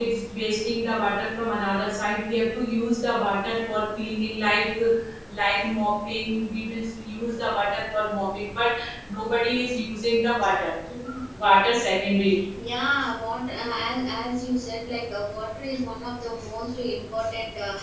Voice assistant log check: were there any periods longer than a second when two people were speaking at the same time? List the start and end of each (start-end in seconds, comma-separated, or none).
none